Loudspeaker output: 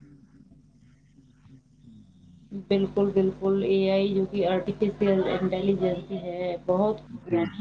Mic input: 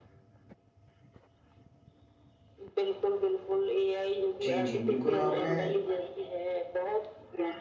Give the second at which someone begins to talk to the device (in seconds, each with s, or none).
4.4 s